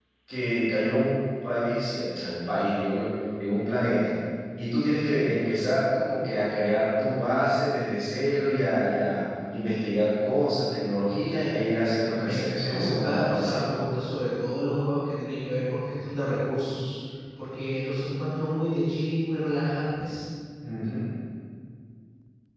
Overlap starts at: 12.2 s

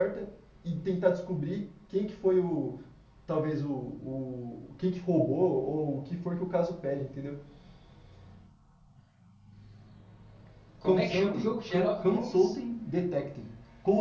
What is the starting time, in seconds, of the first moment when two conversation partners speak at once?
10.8 s

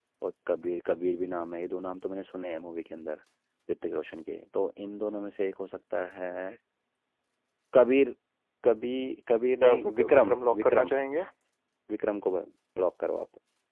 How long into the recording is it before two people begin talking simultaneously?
9.6 s

